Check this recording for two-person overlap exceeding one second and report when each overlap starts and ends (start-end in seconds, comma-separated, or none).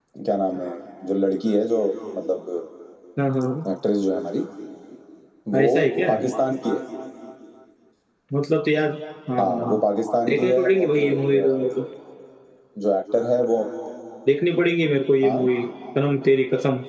10.3-11.8